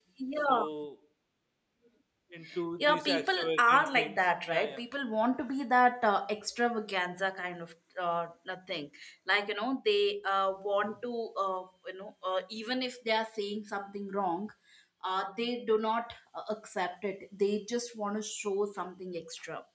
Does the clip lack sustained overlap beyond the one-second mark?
No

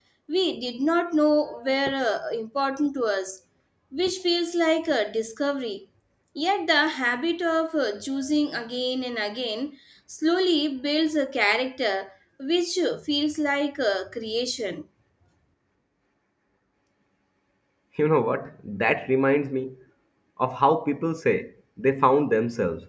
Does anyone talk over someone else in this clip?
No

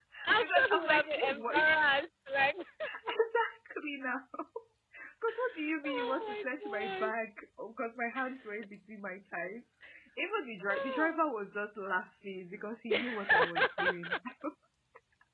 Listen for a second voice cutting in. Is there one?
Yes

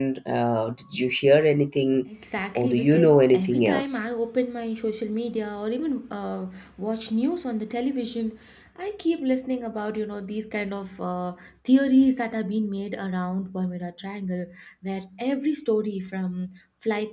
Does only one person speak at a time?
No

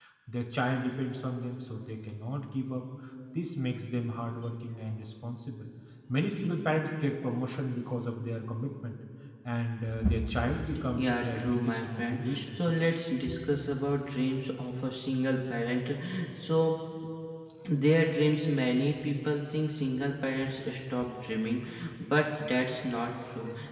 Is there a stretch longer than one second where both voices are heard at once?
Yes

